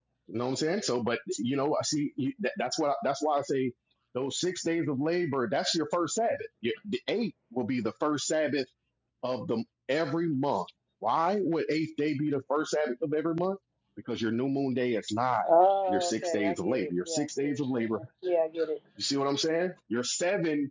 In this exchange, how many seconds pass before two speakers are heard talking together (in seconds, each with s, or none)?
15.9 s